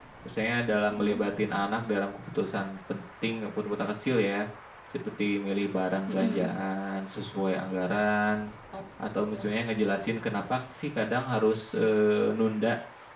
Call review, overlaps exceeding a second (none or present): none